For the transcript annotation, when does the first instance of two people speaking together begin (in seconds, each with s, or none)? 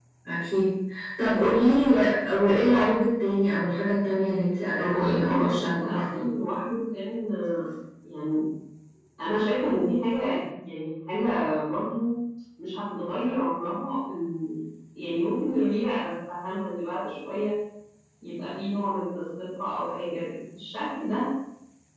4.7 s